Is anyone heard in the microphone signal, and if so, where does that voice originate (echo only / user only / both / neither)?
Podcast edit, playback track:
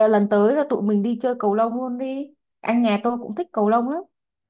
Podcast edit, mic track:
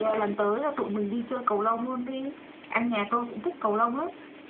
echo only